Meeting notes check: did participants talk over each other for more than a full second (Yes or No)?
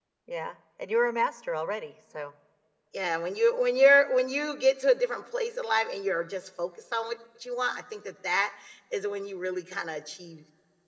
No